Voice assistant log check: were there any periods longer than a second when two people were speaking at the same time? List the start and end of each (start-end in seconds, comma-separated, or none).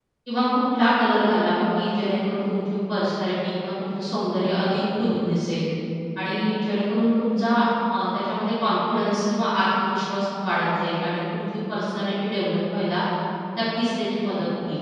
none